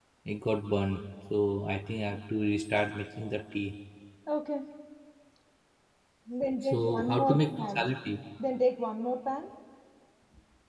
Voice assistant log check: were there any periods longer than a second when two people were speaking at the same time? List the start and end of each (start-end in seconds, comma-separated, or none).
6.6-7.8